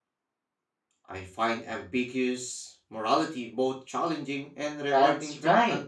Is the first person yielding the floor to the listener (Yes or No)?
Yes